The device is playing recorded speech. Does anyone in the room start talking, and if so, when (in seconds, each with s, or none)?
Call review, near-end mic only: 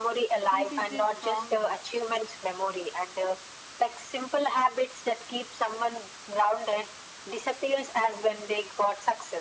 0.5 s